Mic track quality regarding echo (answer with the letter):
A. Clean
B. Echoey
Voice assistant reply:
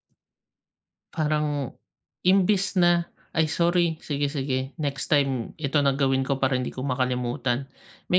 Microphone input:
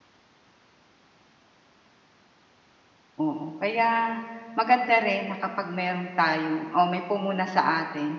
A